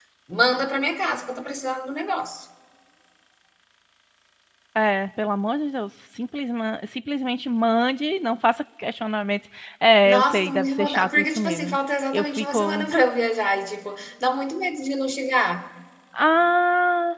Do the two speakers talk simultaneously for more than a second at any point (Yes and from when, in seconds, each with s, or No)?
Yes, from 10.0 s